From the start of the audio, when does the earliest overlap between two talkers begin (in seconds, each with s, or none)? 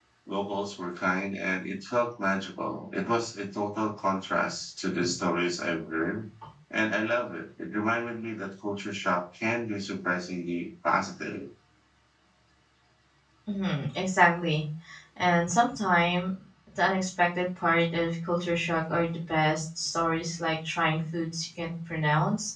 none